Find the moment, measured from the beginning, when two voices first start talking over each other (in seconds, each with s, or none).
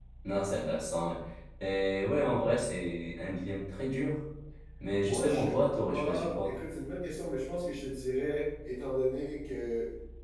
5.0 s